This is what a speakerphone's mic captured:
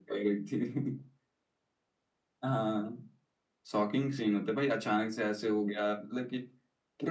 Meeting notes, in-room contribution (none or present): none